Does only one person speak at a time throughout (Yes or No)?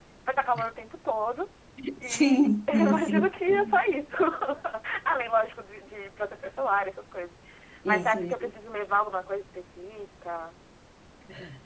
No